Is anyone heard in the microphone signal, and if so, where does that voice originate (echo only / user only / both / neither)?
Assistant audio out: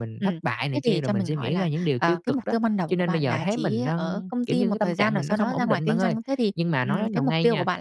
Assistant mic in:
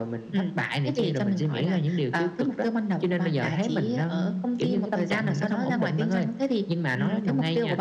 echo only